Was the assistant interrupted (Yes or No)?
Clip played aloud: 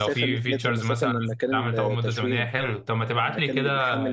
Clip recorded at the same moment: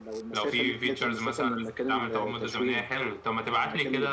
No